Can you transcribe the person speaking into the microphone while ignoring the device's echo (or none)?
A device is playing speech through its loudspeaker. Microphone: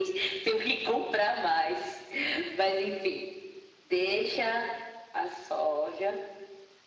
none